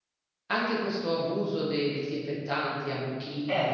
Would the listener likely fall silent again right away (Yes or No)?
Yes